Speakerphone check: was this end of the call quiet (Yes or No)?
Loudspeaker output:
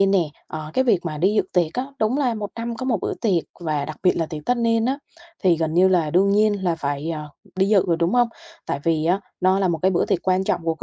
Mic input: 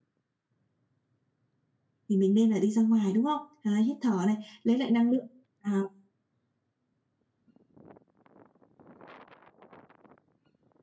No